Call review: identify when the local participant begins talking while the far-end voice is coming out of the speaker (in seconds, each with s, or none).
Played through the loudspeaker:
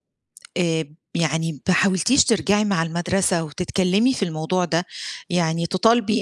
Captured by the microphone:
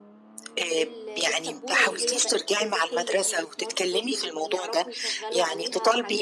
0.8 s